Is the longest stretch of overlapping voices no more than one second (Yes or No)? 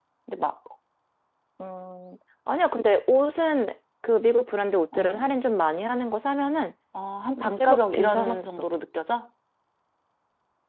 No